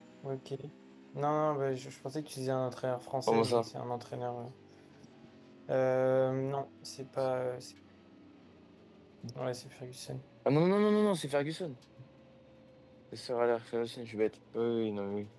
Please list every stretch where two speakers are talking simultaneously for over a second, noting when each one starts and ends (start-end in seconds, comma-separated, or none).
none